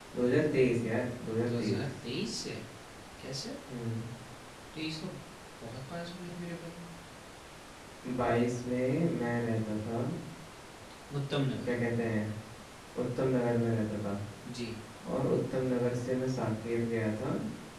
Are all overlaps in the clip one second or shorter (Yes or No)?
Yes